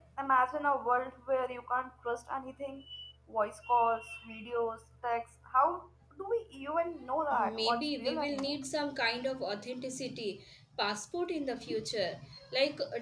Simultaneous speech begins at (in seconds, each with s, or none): 7.3 s